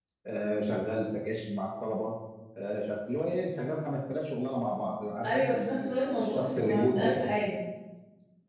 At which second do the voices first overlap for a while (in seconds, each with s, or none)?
5.2 s